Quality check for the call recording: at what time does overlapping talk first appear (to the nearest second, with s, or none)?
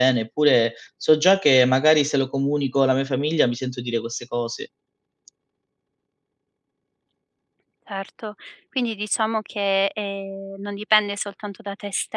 none